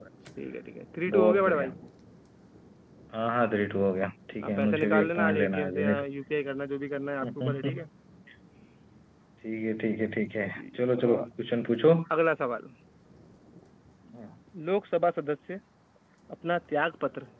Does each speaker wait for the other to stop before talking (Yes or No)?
No